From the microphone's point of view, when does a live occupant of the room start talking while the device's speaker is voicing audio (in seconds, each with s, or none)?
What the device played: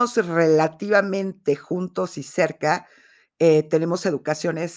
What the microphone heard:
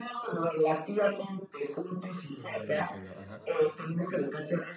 2.3 s